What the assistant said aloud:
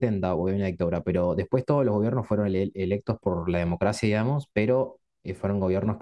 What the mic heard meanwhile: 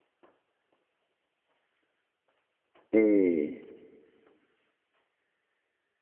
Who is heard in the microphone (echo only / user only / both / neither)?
user only